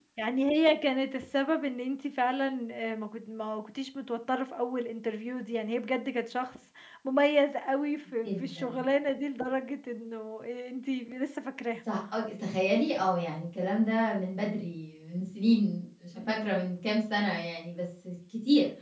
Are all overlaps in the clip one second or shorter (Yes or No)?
Yes